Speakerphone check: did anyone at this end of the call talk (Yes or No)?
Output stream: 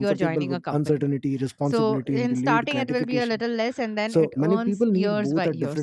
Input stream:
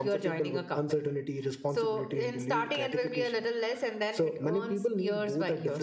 No